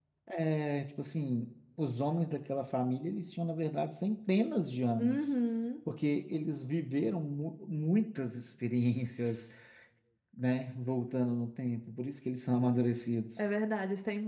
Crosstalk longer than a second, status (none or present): none